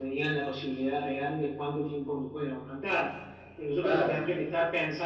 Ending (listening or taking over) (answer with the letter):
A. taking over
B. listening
B